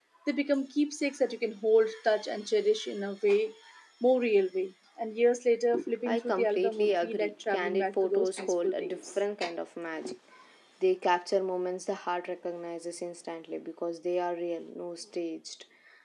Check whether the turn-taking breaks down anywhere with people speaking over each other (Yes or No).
Yes